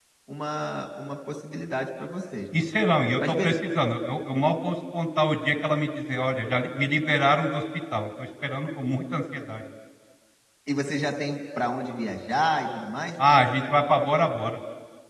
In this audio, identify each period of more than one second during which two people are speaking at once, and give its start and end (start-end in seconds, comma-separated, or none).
none